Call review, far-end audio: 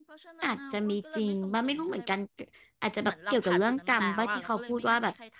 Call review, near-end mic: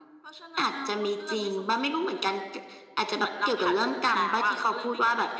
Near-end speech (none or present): none